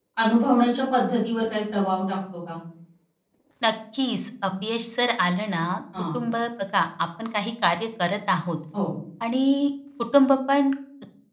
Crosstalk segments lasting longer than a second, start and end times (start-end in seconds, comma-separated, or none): none